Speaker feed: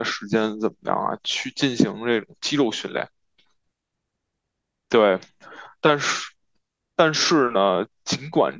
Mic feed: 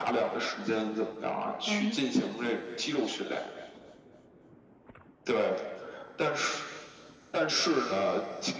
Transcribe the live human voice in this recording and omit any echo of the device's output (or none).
嗯